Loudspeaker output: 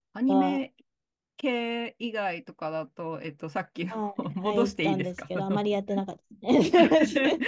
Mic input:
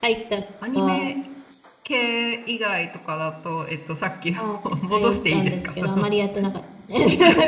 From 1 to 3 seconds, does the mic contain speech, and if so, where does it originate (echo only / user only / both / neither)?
echo only